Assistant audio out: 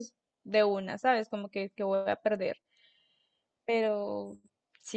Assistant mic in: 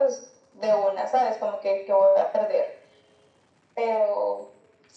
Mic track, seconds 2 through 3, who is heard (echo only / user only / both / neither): echo only